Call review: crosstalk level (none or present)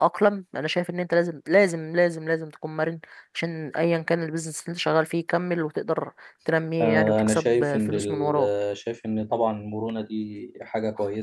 present